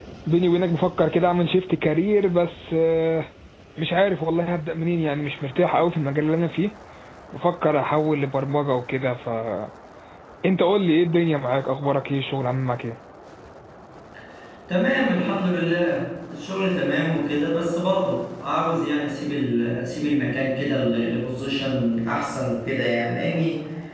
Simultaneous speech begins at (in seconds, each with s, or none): none